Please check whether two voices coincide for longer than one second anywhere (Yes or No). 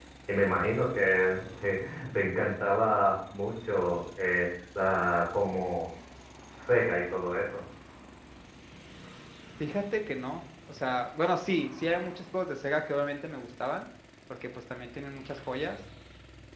No